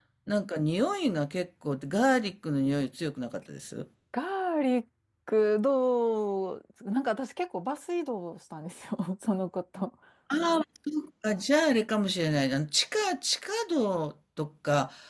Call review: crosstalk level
none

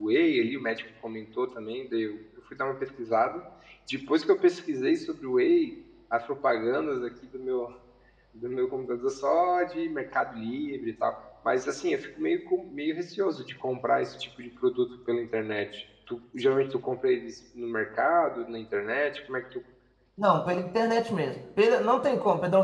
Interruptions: none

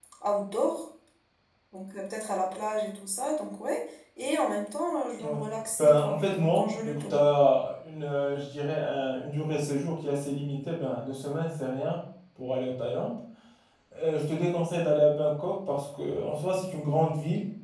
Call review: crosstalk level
present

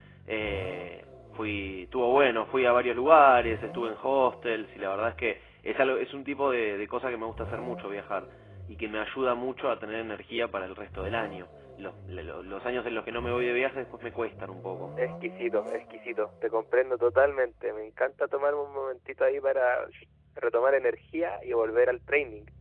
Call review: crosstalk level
none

